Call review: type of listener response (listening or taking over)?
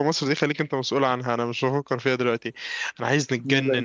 listening